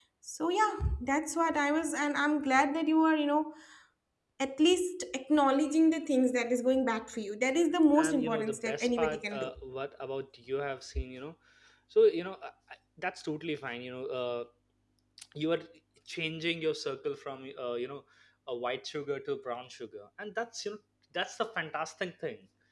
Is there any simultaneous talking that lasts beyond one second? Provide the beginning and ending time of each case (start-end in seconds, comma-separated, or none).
8.0-9.5